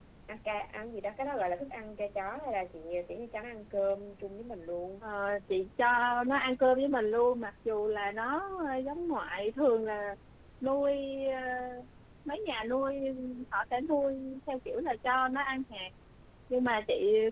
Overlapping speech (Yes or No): No